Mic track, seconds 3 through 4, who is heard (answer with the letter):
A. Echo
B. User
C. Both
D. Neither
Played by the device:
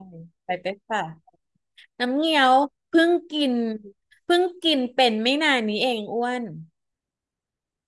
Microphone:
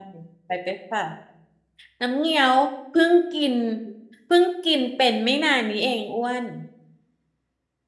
A